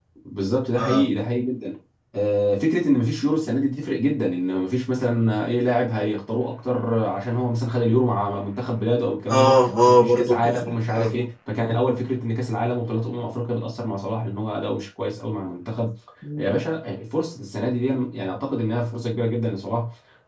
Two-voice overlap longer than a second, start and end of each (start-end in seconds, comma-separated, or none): 9.3-11.2